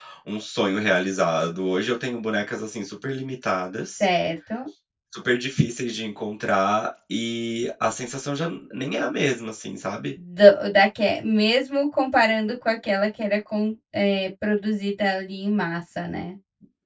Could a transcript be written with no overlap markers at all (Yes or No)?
Yes